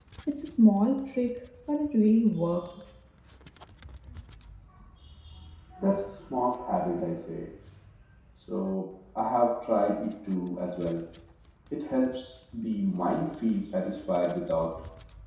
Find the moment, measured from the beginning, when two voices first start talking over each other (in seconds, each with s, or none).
none